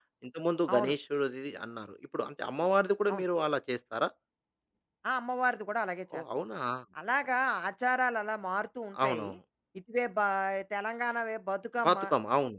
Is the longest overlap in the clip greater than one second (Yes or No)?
No